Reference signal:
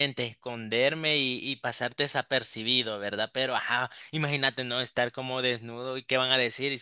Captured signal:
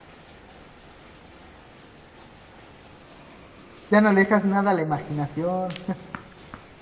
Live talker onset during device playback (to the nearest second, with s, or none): 4 s